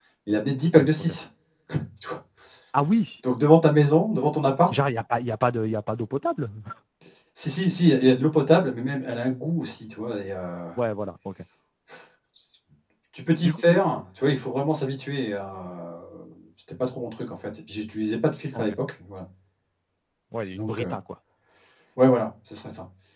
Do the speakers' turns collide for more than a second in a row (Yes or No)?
No